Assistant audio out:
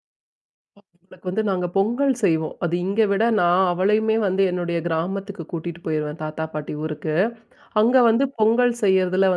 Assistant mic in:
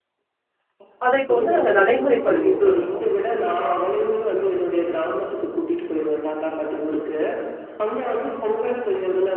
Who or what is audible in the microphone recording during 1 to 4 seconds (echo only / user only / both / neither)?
both